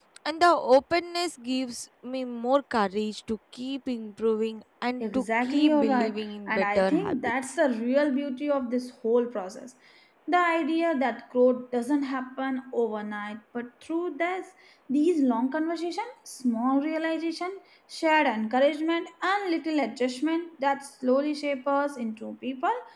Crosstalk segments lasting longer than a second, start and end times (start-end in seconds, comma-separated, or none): 5.0-7.5